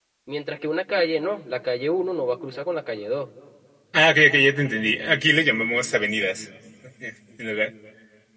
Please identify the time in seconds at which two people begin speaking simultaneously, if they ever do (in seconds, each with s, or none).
none